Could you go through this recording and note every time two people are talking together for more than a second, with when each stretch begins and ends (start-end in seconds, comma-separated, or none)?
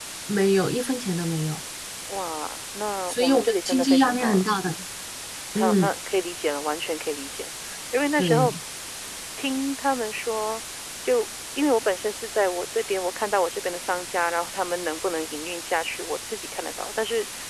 3.1-4.5